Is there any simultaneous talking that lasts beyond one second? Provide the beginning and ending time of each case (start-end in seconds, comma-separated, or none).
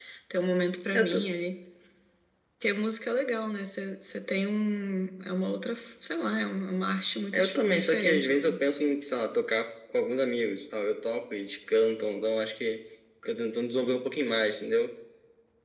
7.3-8.6